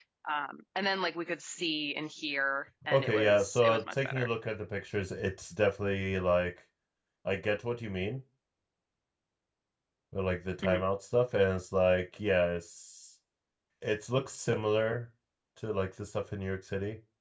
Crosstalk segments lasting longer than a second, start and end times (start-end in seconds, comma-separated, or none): 2.9-4.3